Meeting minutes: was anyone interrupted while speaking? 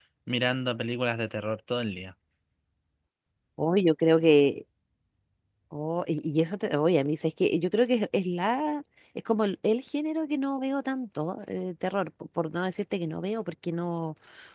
No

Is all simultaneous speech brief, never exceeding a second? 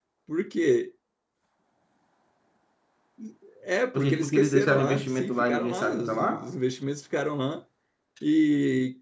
No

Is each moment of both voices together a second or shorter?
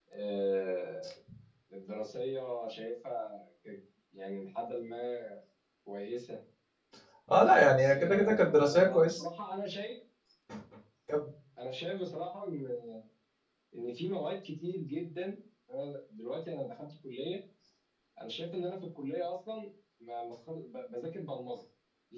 No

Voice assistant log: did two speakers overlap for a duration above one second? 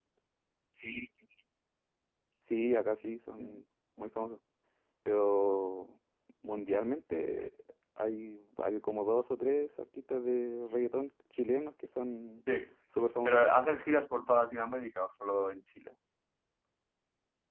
No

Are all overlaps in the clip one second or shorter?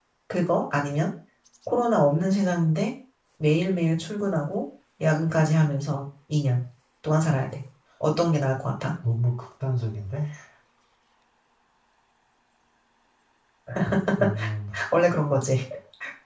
Yes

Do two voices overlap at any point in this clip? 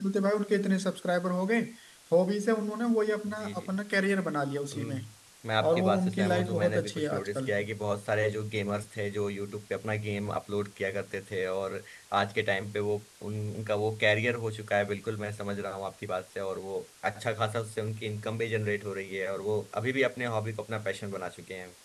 Yes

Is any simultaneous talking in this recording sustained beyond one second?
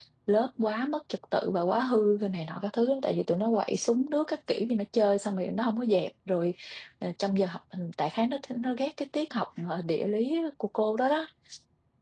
No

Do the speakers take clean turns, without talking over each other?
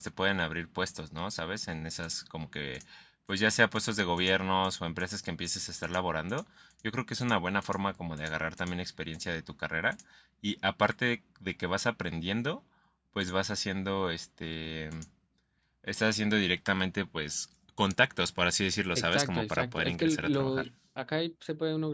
No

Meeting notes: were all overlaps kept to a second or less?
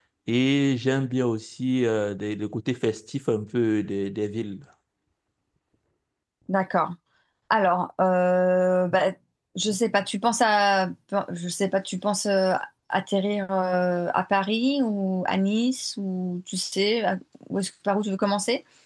Yes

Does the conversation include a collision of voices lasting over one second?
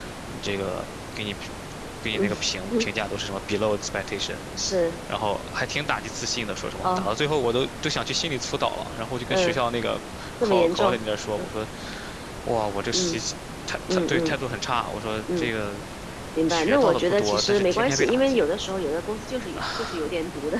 Yes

